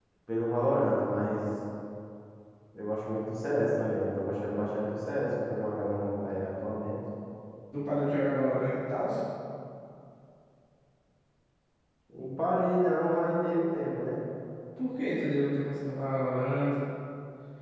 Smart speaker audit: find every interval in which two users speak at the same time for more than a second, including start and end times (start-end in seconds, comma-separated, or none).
none